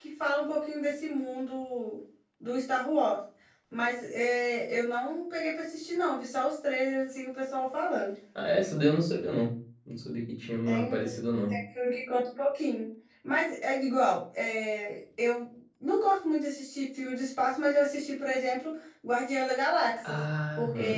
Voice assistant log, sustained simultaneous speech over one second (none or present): none